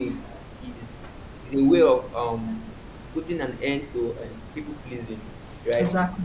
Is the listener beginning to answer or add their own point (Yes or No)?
No